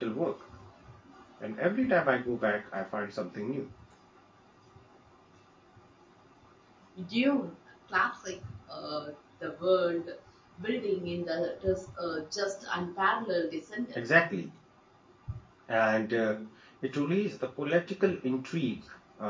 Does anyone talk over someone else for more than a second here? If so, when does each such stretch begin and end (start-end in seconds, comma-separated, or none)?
none